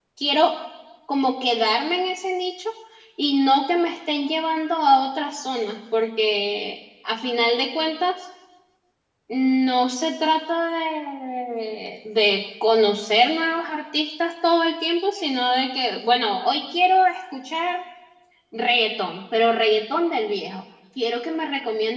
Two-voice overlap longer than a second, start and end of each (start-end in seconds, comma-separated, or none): none